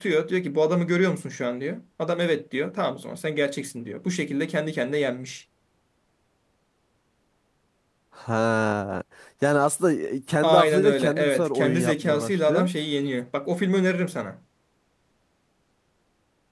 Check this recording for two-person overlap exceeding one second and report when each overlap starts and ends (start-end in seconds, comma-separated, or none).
10.4-12.7